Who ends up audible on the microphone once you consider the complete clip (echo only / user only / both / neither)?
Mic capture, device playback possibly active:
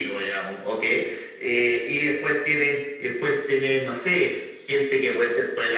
echo only